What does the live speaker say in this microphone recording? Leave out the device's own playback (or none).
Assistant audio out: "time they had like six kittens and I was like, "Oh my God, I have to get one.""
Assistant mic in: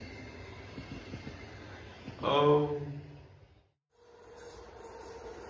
Oh.